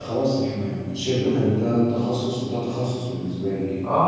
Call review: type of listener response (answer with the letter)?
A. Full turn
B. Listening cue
A